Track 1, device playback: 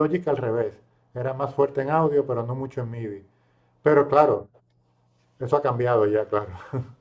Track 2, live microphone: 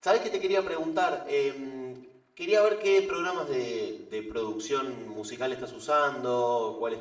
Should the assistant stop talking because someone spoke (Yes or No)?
Yes